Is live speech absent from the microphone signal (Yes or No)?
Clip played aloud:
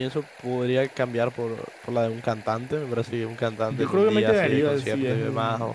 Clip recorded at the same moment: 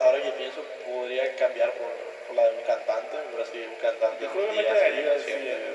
Yes